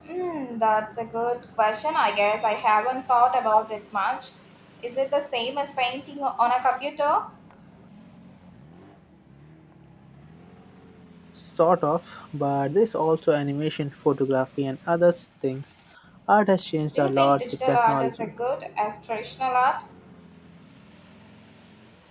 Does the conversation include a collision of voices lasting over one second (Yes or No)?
Yes